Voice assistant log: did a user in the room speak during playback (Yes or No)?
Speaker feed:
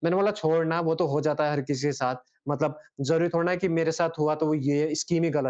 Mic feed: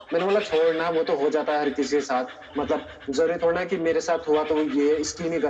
No